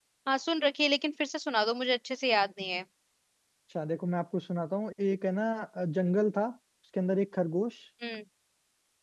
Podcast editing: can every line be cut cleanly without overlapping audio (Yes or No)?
Yes